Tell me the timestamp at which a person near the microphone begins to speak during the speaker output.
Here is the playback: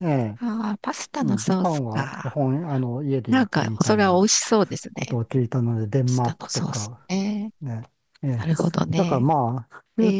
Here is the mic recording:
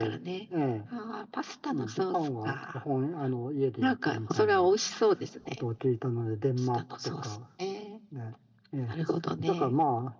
none

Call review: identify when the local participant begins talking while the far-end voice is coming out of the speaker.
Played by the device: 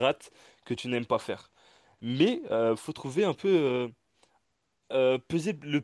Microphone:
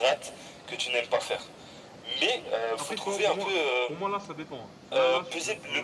3 s

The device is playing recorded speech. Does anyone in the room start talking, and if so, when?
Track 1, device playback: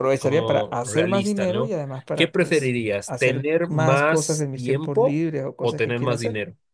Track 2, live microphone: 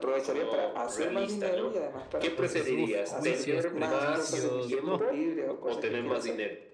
2 s

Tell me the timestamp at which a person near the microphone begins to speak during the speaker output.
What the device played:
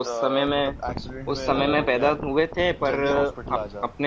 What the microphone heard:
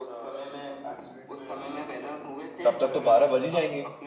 3 s

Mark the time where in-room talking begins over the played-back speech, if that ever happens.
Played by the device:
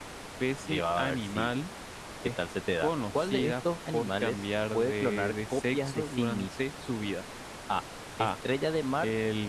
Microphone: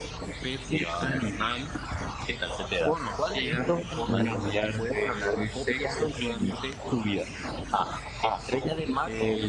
4 s

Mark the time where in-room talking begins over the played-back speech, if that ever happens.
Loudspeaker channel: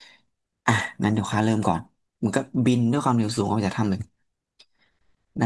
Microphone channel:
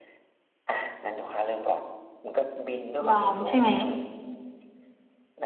3 s

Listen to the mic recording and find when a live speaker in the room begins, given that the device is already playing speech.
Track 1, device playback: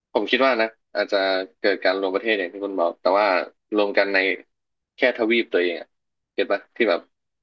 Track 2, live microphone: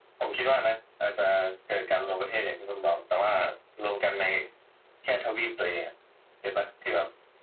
none

